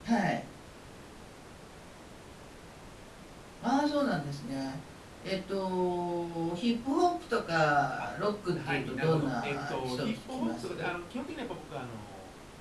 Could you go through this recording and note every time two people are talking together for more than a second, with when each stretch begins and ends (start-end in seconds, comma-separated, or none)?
8.7-10.9